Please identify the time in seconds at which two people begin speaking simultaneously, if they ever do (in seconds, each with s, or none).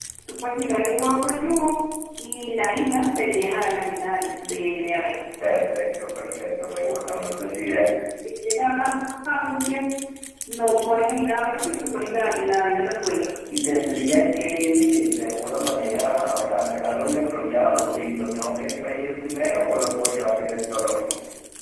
none